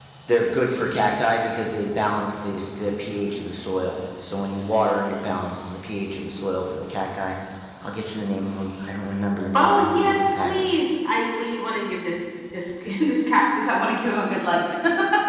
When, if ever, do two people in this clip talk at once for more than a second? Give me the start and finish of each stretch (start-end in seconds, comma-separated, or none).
9.5-10.8